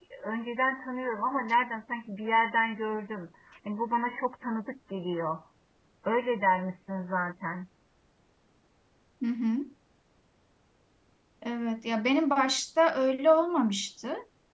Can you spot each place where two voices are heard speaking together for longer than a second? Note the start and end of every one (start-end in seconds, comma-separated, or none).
none